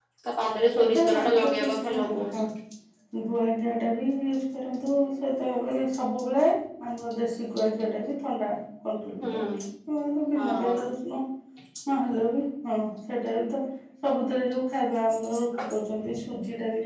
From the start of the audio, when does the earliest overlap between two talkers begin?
0.8 s

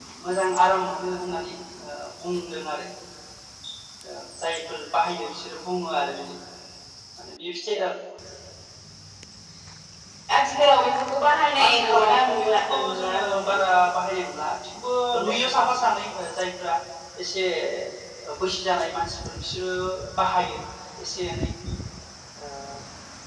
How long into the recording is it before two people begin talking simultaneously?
11.6 s

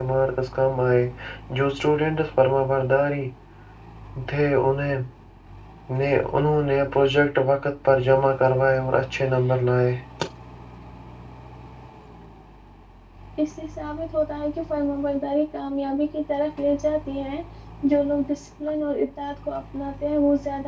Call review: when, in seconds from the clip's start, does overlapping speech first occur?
none

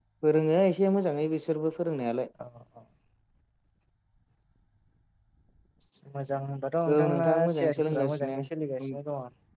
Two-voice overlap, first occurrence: 6.9 s

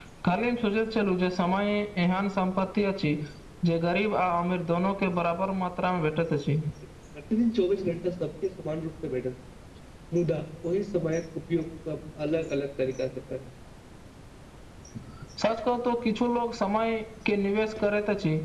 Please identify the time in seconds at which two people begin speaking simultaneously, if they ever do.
none

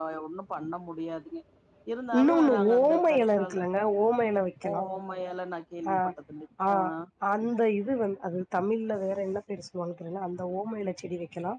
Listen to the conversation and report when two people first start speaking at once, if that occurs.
2.2 s

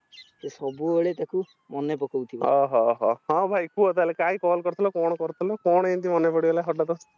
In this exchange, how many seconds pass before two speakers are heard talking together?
none

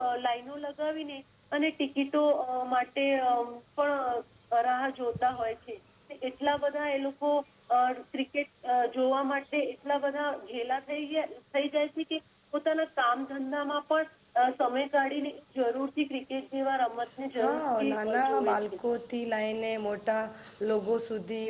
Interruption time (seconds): 17.4 s

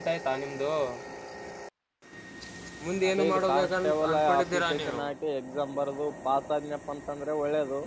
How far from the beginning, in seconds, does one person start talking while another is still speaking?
3.1 s

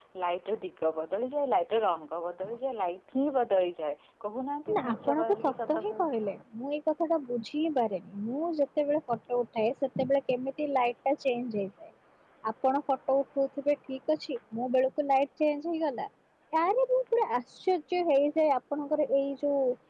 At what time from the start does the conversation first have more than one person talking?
4.7 s

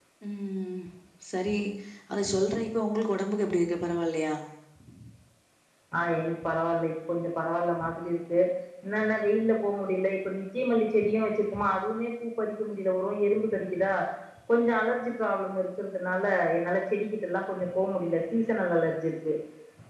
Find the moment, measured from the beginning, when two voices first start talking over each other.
none

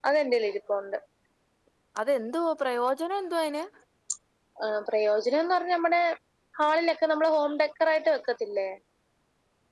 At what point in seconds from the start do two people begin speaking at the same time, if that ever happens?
none

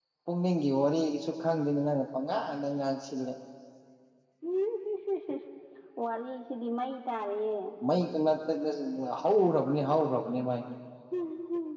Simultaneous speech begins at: none

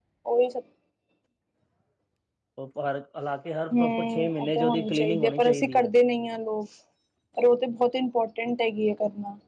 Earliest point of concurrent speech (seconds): 3.7 s

